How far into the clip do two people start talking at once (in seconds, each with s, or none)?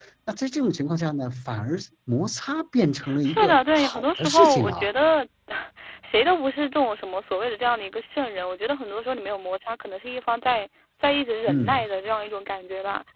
3.2 s